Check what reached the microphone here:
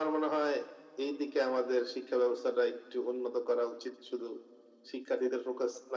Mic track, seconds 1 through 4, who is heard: echo only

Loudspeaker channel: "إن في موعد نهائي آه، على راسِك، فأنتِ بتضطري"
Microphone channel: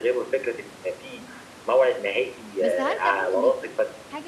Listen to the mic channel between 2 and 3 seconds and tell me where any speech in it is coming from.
both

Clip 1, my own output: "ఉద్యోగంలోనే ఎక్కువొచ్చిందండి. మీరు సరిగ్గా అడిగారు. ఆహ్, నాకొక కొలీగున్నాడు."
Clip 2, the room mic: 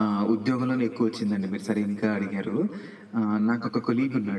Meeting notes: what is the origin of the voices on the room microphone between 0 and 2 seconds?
echo only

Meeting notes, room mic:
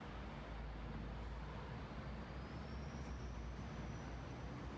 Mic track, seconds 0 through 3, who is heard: neither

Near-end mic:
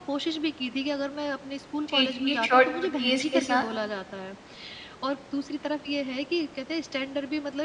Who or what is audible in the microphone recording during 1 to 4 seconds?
both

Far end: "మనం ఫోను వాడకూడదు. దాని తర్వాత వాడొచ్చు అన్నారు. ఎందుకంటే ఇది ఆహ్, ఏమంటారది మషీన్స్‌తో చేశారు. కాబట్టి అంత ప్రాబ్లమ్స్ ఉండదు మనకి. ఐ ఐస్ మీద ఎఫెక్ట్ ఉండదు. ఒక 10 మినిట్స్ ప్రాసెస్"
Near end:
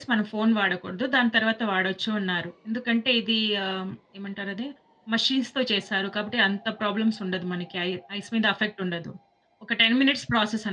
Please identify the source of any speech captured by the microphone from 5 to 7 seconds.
echo only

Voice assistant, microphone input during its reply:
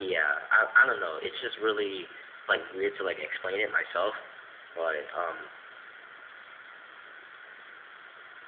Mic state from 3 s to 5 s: echo only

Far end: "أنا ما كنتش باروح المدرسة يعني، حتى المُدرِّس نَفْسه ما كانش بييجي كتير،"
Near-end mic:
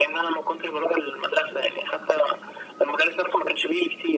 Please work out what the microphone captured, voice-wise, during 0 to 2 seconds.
echo only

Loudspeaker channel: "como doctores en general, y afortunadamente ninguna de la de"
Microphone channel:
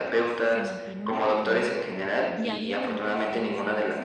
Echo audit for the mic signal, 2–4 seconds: both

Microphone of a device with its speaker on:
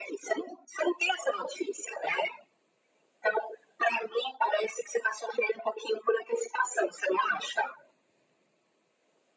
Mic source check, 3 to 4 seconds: echo only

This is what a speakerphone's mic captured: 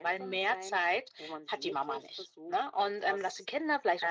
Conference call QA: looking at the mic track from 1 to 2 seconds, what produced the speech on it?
echo only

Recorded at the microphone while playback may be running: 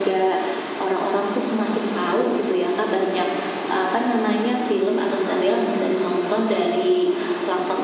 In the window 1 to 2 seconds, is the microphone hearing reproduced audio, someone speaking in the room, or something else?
echo only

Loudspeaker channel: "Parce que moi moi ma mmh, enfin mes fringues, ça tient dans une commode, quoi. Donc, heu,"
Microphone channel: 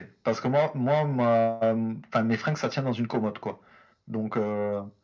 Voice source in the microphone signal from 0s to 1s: echo only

